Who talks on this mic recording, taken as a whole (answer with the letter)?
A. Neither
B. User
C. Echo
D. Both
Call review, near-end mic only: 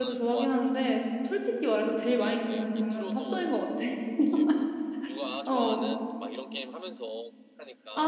D